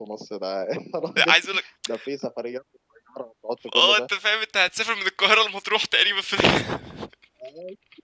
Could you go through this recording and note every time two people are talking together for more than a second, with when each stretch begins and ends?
none

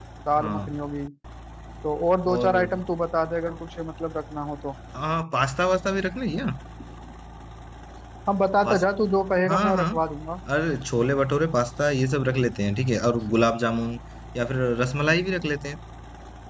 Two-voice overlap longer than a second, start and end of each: none

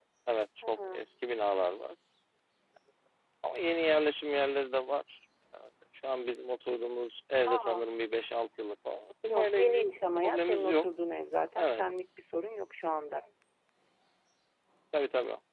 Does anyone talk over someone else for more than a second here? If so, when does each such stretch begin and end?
9.3-10.8

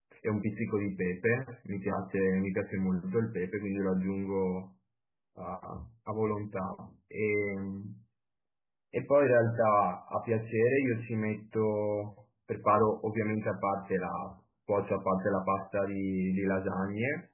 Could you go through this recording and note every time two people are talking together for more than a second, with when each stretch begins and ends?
none

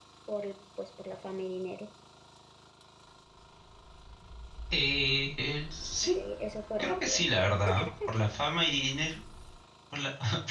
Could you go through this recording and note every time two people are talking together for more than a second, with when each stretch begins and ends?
none

